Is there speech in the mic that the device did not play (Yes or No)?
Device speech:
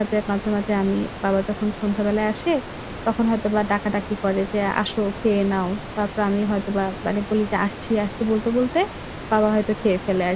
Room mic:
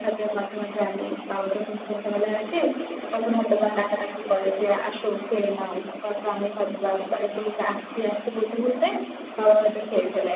No